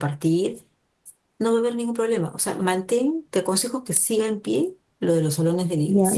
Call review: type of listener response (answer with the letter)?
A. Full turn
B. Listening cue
A